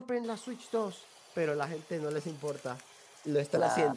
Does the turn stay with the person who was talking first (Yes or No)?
Yes